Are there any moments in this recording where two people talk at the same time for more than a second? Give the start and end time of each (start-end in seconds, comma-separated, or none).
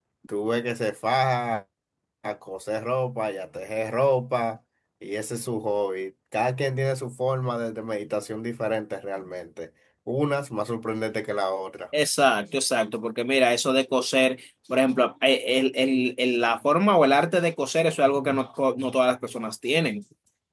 none